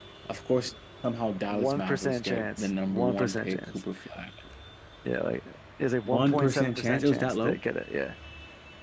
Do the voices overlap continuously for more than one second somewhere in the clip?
Yes, from 1.5 s

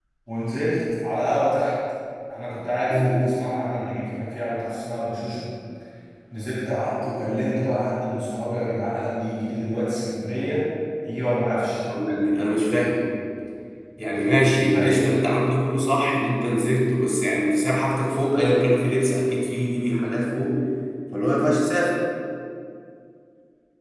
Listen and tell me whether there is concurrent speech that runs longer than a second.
No

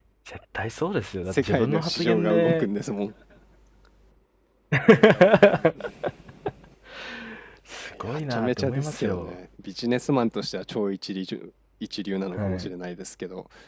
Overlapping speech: Yes, from 1.3 s

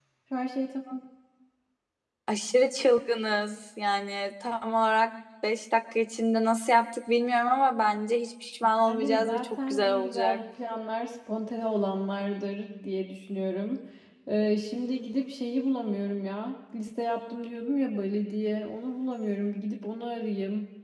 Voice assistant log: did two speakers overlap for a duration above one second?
Yes, from 8.8 s

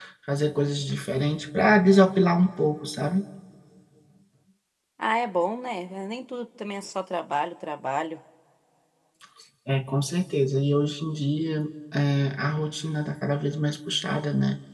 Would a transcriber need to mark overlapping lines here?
No

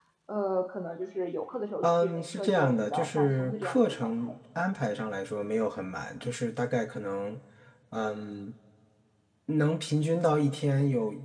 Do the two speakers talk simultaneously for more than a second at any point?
Yes, from 1.8 s

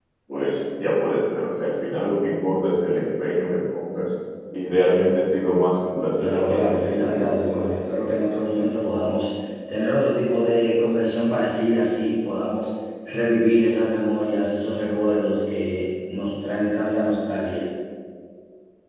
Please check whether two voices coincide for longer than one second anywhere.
Yes, from 6.2 s

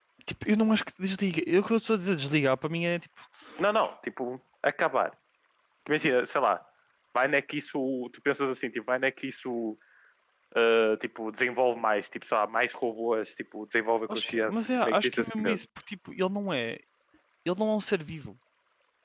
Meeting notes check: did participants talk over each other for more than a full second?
Yes, from 14.1 s

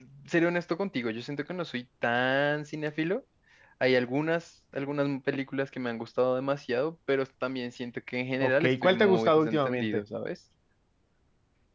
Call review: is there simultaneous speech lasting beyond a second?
Yes, from 8.4 s

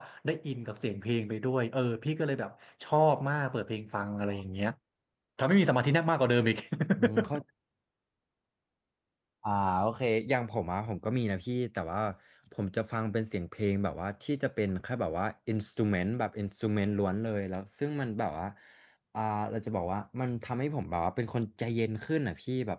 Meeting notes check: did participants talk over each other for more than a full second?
No

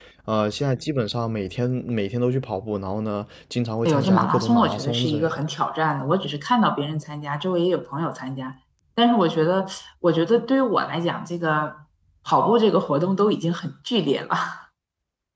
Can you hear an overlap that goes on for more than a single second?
Yes, from 3.9 s

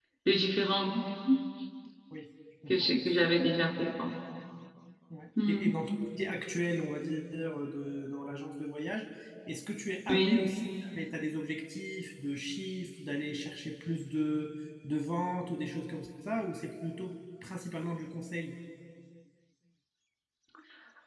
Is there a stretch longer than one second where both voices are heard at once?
No

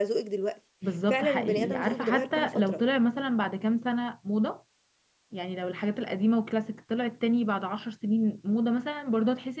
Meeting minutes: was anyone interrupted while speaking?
Yes, from 1.1 s

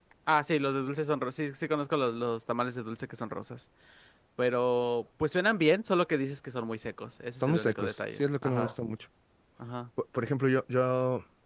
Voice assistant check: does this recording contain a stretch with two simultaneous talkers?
Yes, from 7.4 s

